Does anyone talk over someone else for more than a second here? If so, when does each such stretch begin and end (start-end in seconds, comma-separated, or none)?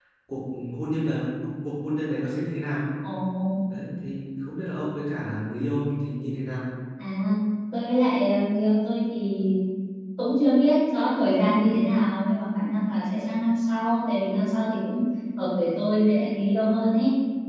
none